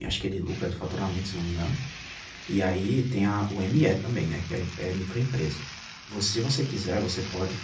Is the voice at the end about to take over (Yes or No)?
No